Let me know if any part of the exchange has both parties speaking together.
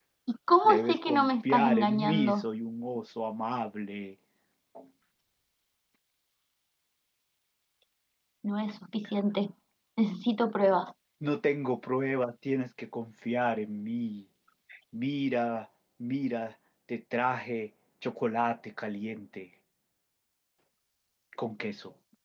Yes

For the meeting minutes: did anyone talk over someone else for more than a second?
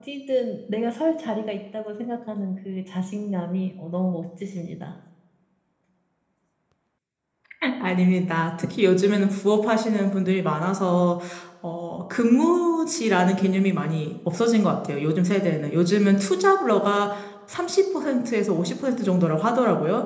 No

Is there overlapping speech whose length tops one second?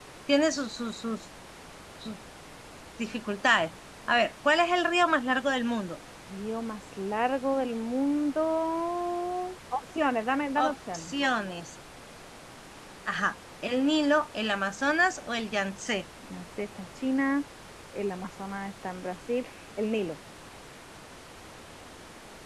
No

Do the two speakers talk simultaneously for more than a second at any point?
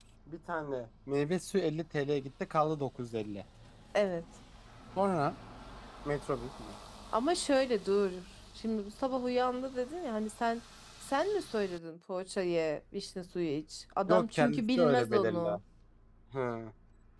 Yes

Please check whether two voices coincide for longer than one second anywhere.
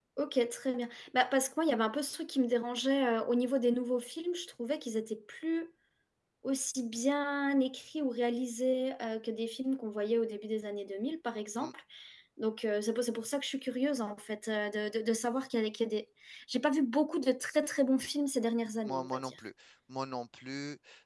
No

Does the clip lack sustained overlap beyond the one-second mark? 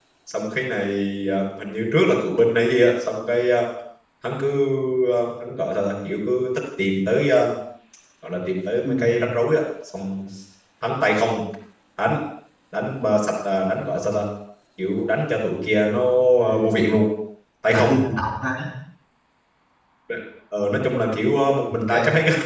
Yes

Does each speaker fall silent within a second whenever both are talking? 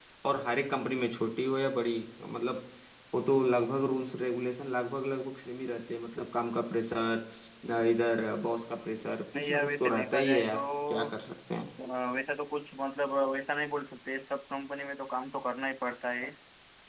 No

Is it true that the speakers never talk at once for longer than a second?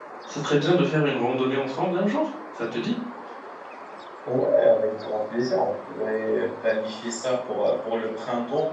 Yes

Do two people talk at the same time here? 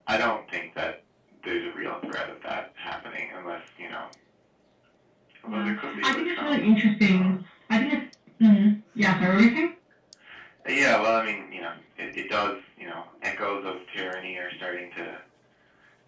Yes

